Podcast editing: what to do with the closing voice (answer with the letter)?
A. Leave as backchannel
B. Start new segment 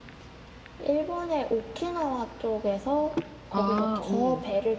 A